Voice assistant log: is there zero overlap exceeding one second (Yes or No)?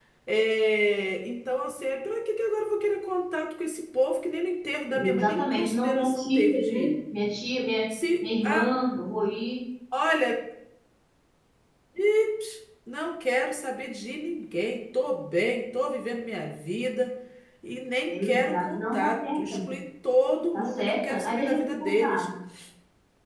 No